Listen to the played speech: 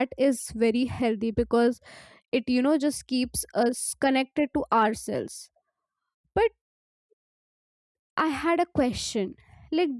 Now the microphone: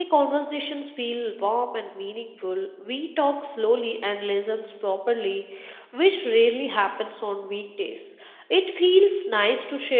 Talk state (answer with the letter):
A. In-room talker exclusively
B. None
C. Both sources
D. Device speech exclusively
A